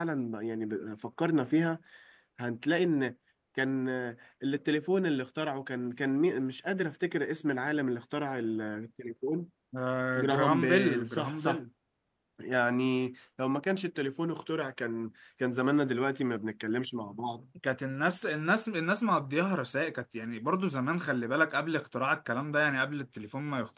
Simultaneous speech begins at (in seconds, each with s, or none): 10.2 s